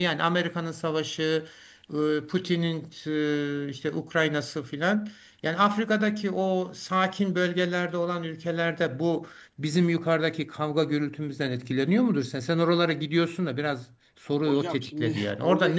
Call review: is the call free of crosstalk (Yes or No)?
No